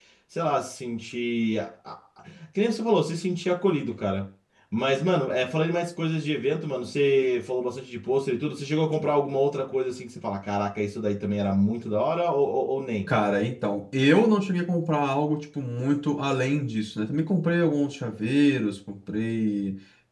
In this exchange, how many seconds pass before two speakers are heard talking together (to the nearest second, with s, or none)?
none